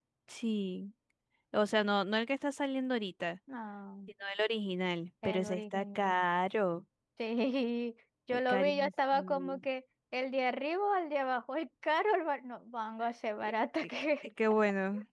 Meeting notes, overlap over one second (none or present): present